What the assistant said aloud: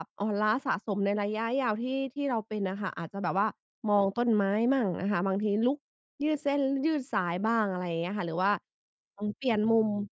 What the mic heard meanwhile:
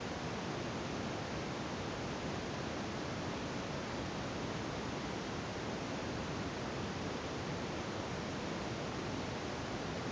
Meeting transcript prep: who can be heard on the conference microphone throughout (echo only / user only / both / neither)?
neither